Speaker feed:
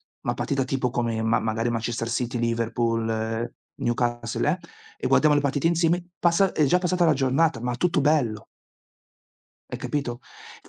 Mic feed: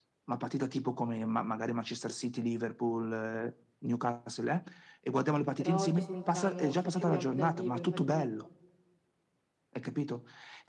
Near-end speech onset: 5.5 s

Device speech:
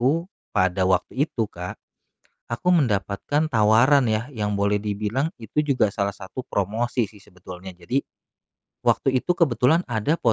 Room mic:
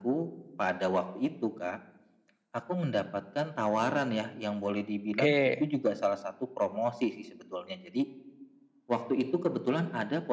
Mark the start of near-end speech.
5.1 s

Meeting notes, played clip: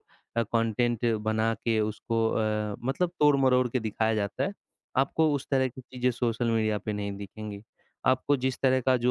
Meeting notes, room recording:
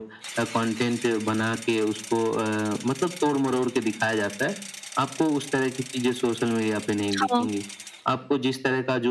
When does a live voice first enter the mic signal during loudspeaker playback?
7.2 s

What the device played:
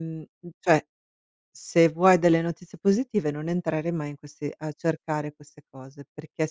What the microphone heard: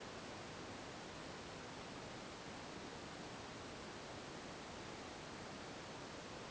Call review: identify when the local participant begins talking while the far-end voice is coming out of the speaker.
none

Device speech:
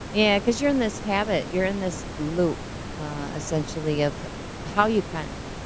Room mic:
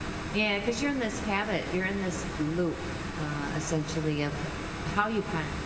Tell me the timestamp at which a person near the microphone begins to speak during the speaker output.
none

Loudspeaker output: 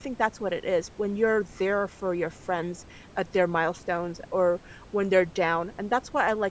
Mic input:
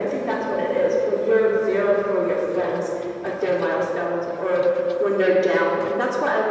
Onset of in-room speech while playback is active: none

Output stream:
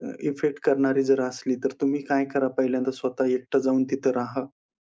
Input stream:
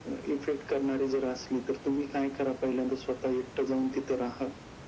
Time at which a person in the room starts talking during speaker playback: none

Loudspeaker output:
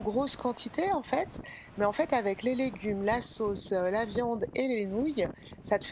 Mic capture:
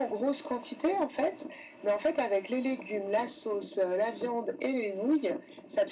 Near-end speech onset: none

